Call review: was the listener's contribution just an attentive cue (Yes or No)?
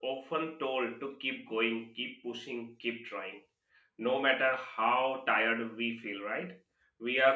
Yes